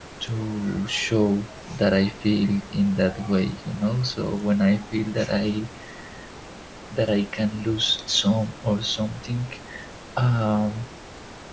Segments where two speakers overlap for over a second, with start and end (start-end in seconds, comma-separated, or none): none